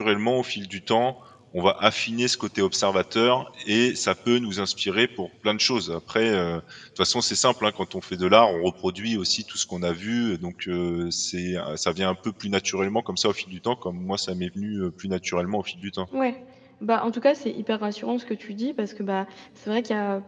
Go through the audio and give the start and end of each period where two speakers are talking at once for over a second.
none

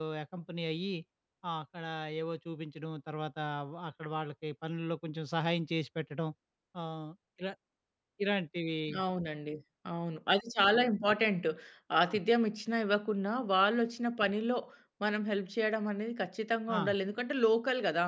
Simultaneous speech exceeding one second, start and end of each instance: none

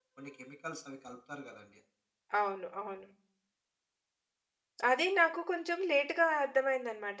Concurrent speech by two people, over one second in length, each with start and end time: none

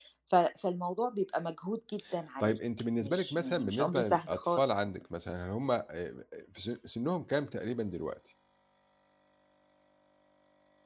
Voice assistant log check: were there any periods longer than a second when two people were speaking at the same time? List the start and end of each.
3.0-5.0

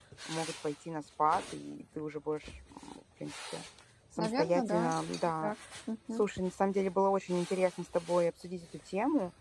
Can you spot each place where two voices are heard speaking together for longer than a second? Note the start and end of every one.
4.2-5.5

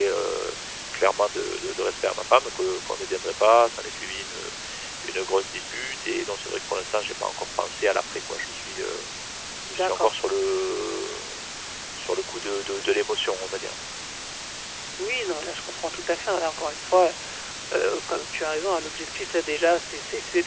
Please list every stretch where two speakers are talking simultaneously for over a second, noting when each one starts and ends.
none

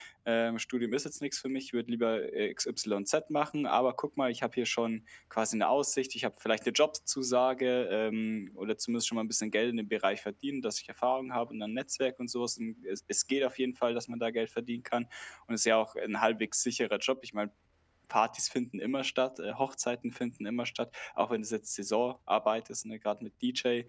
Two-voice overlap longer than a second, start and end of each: none

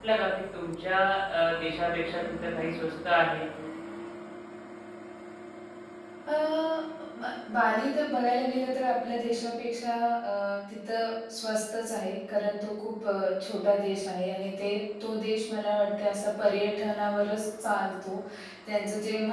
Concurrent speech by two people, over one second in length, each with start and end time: none

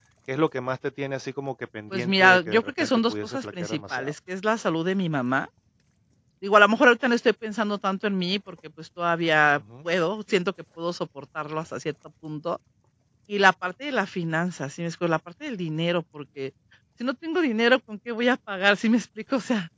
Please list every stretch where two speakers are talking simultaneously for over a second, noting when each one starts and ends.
1.9-4.1

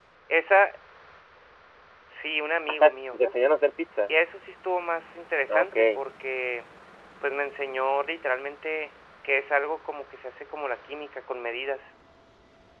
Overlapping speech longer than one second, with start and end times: none

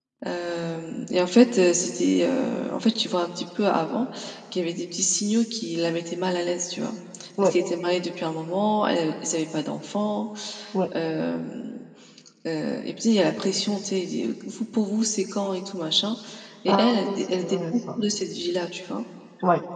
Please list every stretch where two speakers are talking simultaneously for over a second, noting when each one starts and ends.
16.7-18.0

